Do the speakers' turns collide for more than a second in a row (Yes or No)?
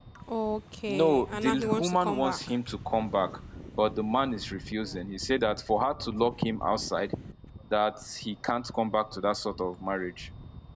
Yes